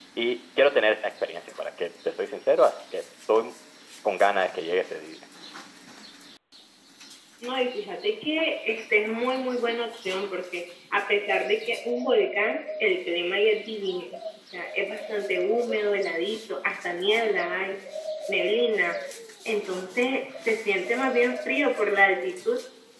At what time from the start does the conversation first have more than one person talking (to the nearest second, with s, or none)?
none